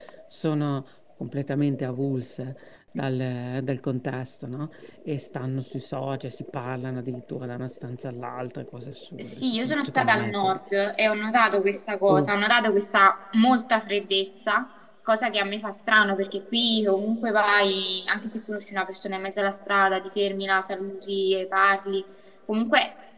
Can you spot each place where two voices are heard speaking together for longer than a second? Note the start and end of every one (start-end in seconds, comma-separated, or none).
9.2-10.6